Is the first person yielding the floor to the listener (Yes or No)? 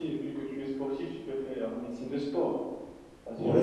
Yes